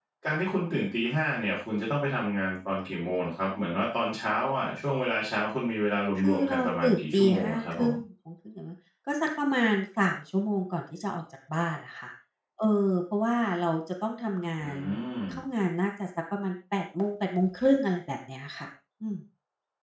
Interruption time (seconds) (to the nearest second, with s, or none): 6 s